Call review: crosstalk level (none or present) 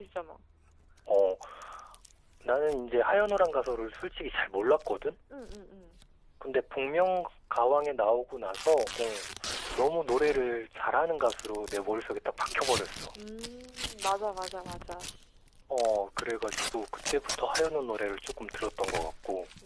none